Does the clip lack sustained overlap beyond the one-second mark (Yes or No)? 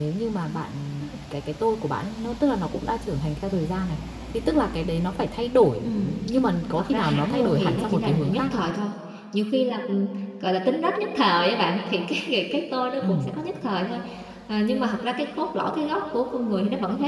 No